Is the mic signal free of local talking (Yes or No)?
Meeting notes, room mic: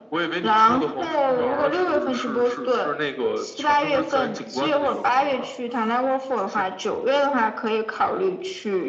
Yes